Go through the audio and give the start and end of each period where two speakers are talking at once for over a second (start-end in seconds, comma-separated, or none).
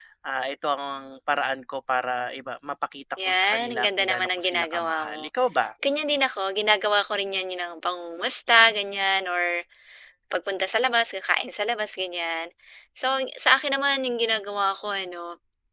3.2-5.2